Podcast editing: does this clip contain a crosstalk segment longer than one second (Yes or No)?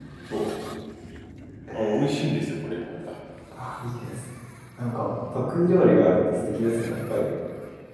No